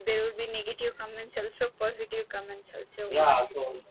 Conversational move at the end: taking over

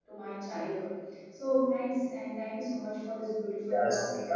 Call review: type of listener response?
taking over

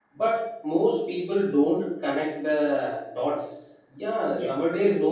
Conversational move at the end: listening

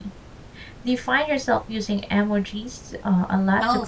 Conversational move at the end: taking over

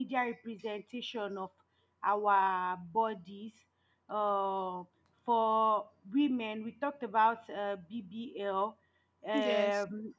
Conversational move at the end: listening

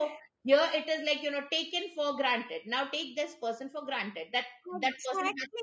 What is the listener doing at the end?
taking over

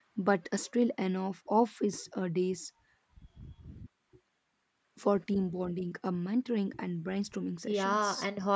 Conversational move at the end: taking over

